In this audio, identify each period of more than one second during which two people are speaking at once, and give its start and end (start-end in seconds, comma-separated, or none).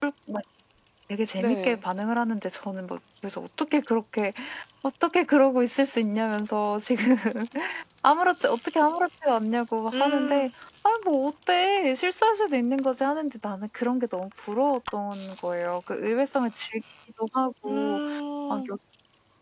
none